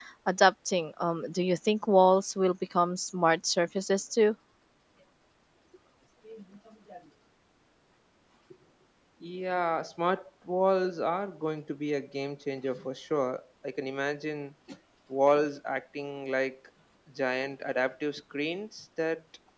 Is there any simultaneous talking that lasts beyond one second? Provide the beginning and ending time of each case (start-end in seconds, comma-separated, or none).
none